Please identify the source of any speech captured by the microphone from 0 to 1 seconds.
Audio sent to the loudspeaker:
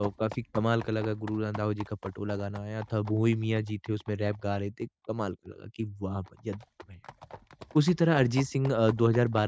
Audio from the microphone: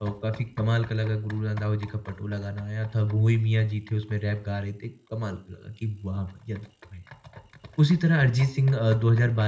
echo only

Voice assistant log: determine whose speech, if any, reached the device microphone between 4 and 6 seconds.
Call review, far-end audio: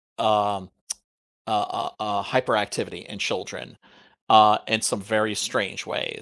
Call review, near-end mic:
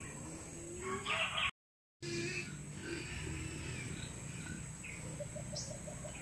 neither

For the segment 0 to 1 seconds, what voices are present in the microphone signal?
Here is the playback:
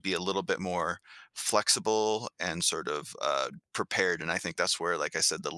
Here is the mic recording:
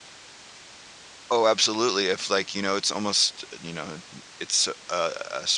neither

